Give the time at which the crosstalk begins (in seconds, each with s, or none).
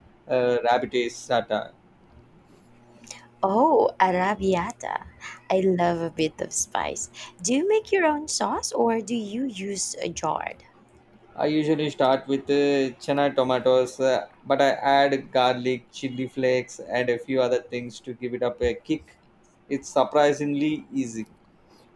none